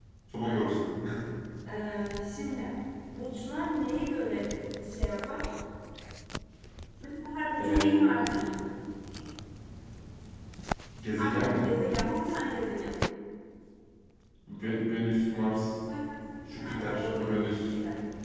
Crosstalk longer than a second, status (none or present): present